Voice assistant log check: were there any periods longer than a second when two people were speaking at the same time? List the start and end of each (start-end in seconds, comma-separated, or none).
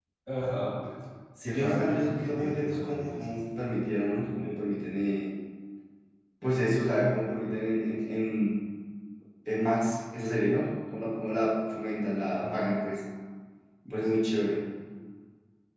1.4-3.2